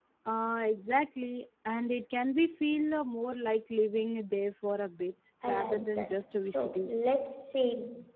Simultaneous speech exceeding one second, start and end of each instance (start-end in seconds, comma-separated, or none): 5.4-6.9